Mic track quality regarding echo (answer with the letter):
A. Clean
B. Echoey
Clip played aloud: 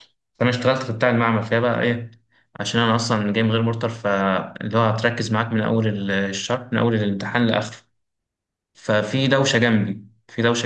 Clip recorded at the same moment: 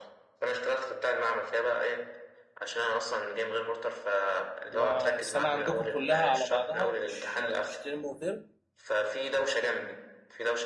B